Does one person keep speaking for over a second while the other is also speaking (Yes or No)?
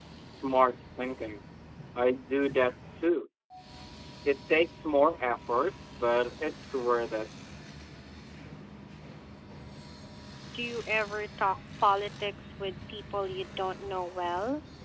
No